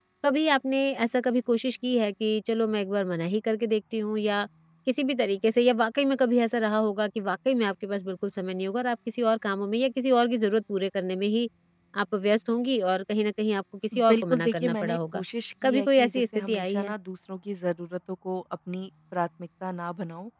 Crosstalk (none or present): present